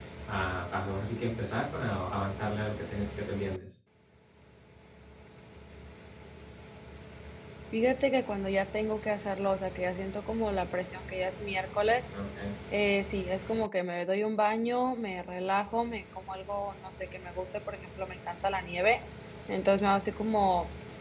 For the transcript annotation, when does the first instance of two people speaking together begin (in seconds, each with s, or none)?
none